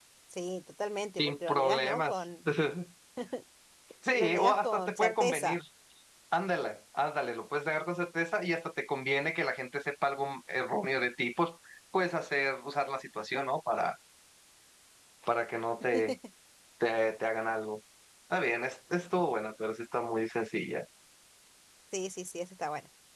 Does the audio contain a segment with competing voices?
Yes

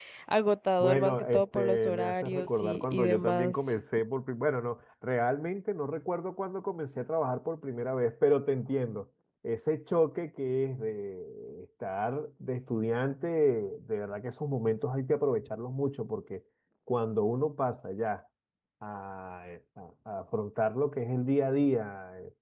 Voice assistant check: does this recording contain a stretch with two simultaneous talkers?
Yes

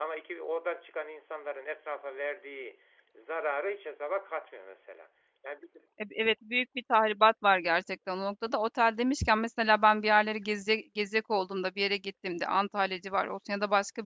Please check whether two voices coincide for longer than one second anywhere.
No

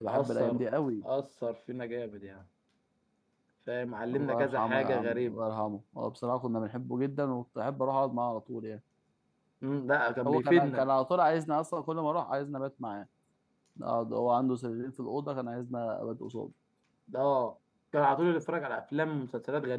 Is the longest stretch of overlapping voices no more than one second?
No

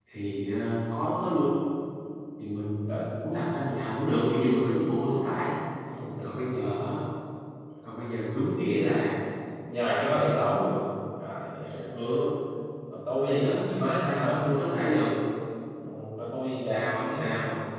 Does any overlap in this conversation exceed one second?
Yes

